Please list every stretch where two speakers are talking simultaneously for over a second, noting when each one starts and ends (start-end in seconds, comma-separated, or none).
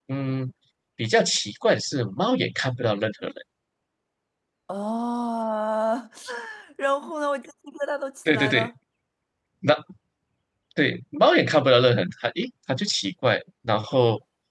none